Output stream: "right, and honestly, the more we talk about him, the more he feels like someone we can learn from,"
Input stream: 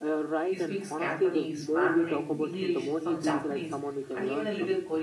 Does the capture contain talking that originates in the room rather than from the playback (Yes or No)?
Yes